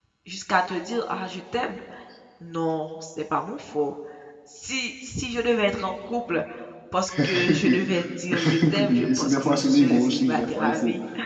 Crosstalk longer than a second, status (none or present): present